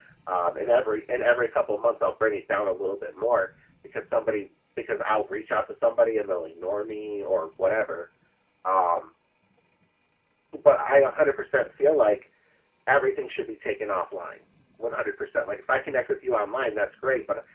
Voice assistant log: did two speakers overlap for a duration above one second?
No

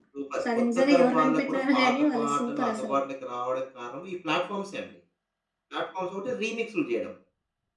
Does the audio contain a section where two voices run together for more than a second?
Yes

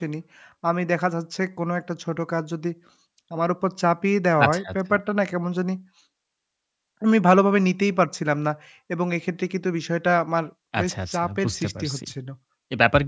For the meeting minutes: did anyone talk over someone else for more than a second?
Yes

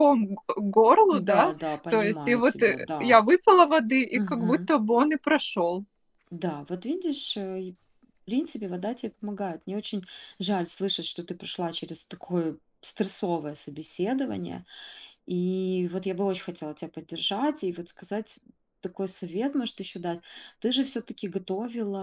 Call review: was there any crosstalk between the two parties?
Yes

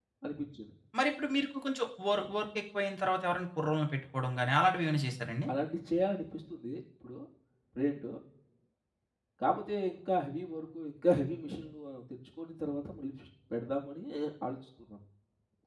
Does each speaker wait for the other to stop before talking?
Yes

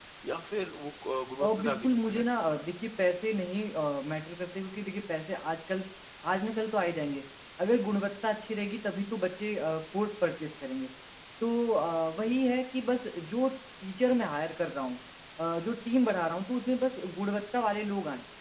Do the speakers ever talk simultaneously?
Yes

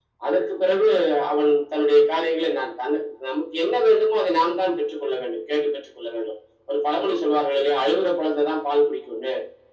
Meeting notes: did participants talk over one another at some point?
No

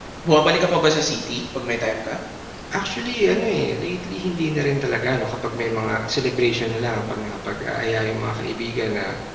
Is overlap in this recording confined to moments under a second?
Yes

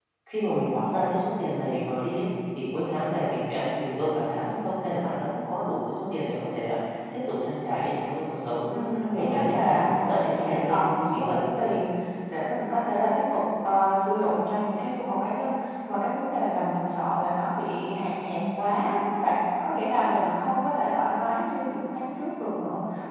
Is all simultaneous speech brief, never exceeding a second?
No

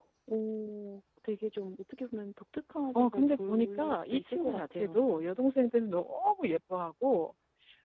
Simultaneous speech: Yes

